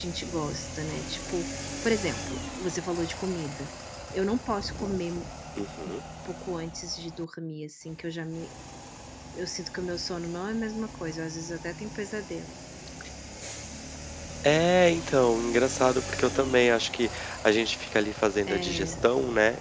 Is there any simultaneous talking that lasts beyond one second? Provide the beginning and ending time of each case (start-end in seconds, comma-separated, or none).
none